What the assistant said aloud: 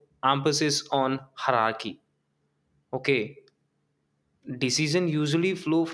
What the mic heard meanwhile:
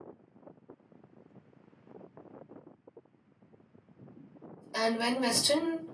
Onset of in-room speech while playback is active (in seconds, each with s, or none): 4.7 s